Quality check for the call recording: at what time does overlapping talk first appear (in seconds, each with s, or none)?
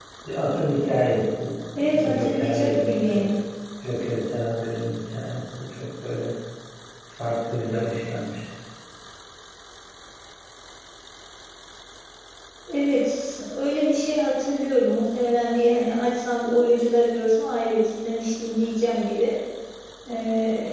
2.0 s